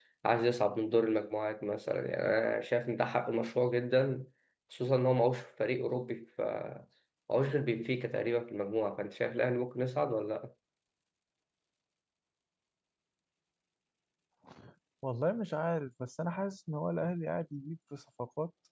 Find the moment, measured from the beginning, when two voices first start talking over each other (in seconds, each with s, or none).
none